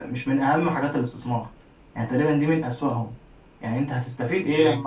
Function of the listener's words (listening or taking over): listening